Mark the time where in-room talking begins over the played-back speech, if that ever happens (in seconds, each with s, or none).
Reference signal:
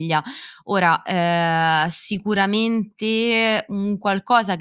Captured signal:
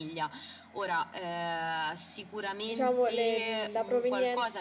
2.6 s